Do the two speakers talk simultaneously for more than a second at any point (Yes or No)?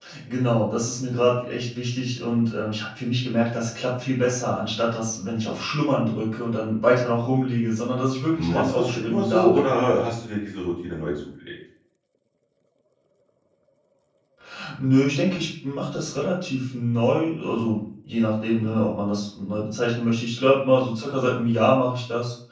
Yes